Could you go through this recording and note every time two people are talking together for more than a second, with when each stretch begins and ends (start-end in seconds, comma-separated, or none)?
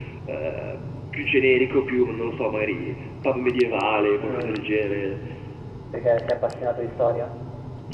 none